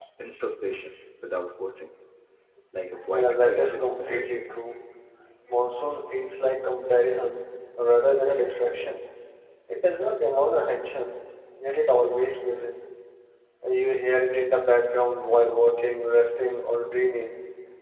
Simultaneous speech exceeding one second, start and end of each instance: 3.1-4.5

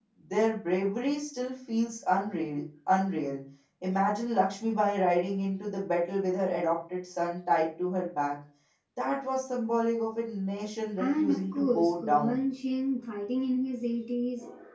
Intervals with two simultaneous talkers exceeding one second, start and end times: 11.0-12.4

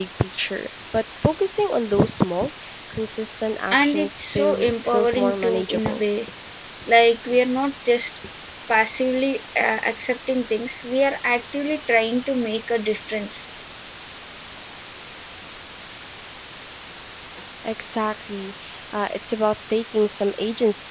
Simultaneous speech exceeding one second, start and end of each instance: 3.7-6.0

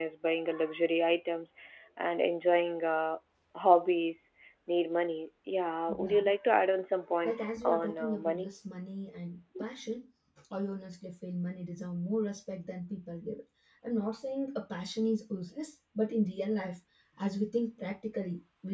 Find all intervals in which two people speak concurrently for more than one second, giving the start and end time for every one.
7.2-8.5

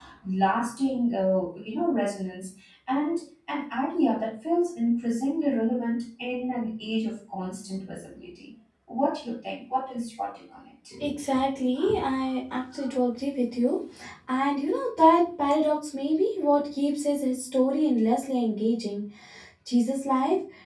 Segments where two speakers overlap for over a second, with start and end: none

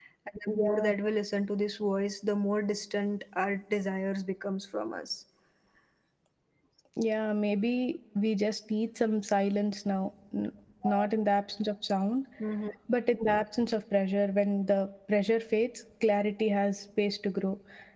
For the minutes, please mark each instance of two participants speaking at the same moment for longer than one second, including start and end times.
none

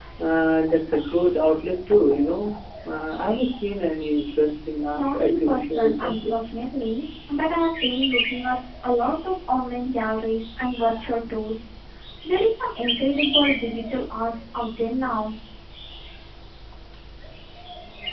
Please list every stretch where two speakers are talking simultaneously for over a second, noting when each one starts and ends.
4.9-6.3

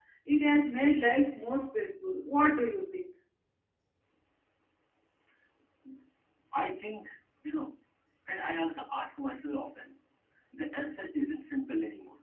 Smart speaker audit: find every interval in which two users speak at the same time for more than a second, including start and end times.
none

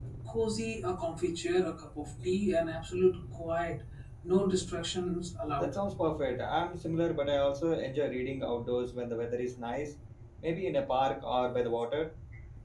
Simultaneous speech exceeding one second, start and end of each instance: none

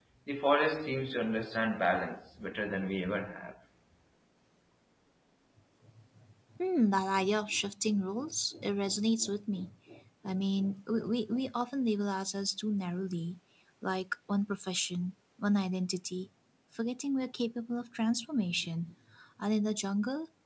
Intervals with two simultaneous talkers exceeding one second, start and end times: none

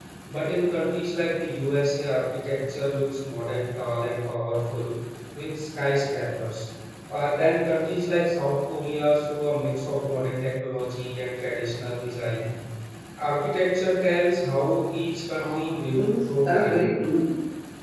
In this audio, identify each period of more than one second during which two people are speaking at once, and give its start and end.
15.4-16.9

